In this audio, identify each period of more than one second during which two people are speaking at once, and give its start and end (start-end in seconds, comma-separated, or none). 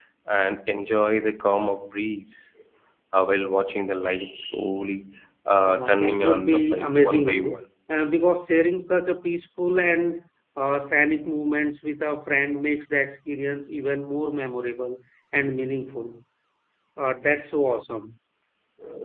5.7-7.6